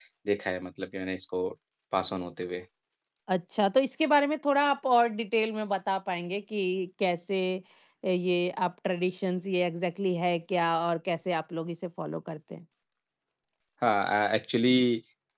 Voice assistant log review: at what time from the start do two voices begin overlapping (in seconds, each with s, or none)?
none